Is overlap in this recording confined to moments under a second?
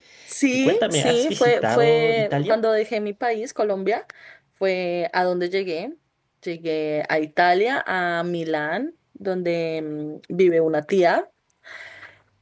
No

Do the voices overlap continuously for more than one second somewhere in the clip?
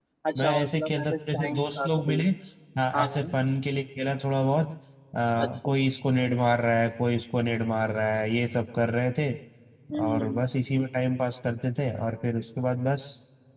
Yes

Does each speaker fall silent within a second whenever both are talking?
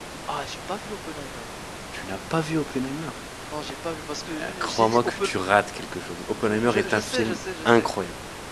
No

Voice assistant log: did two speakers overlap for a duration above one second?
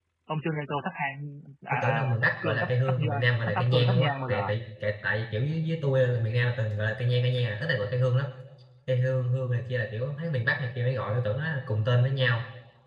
Yes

